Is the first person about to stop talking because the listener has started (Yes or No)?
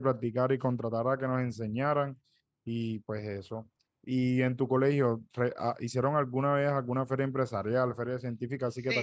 Yes